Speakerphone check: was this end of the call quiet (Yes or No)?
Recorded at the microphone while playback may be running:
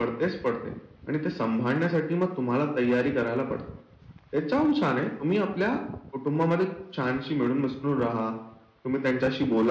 Yes